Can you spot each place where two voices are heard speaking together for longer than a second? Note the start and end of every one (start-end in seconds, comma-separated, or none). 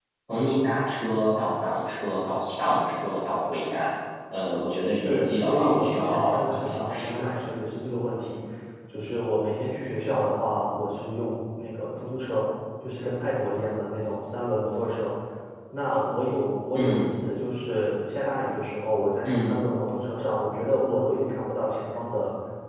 4.9-7.3